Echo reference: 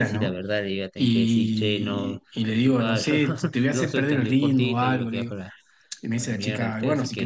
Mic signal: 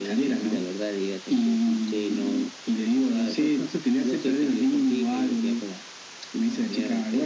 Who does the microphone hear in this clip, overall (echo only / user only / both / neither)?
echo only